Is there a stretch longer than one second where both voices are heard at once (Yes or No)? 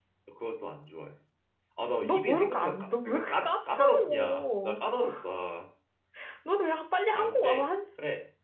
Yes